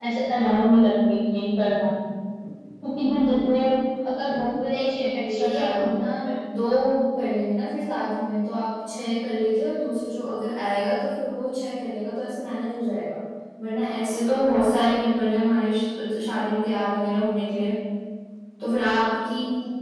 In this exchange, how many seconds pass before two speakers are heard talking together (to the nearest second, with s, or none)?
5 s